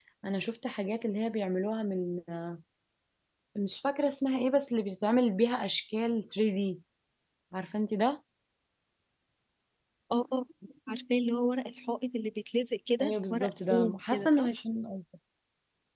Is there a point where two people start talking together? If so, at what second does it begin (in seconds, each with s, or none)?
13.0 s